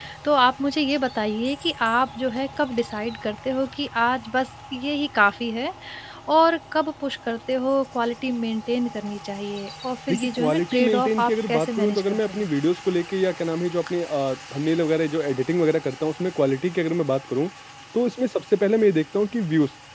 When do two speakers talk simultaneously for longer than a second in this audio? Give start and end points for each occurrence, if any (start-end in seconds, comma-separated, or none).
10.1-12.4